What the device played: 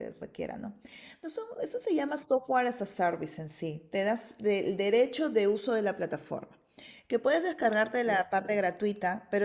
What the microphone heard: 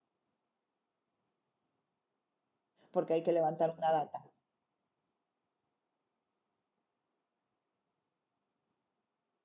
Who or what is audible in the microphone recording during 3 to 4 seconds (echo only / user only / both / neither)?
user only